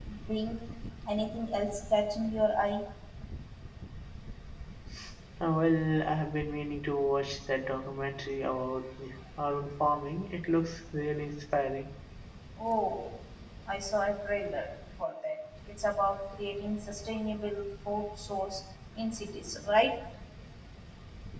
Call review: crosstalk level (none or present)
none